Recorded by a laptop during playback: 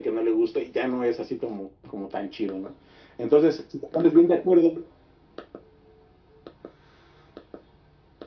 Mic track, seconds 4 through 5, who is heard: echo only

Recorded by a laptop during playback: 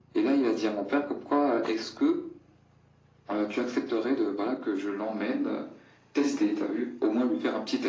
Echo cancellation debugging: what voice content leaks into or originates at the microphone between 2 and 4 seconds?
echo only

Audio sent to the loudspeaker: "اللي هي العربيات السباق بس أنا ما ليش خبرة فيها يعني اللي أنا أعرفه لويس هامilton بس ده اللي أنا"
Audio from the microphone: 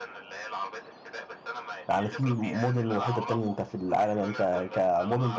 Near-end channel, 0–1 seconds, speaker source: echo only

